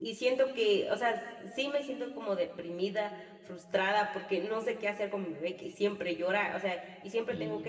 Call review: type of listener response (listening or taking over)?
listening